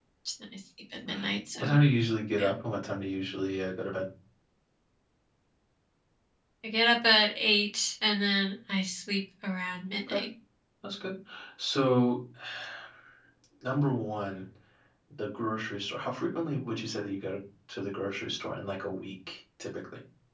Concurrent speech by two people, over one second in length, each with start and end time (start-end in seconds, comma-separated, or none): none